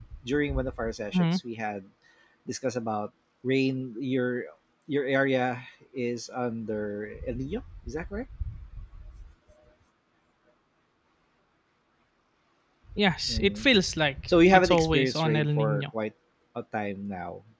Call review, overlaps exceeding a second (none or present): present